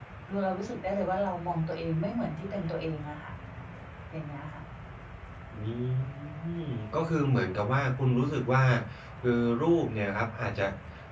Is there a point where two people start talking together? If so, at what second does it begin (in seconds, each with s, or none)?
none